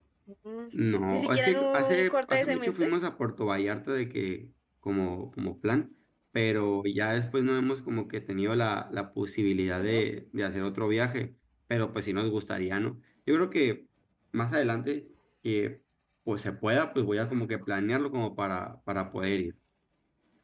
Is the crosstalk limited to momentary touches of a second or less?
No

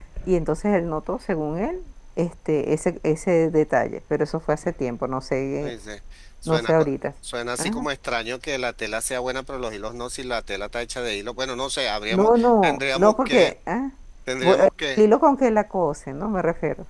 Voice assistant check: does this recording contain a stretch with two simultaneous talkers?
Yes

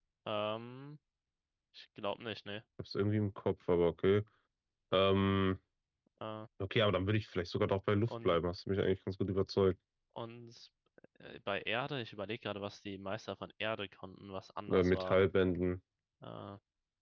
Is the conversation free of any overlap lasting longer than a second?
Yes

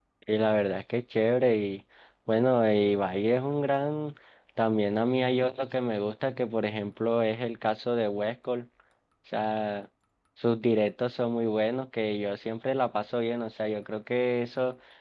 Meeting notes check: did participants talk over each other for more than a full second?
No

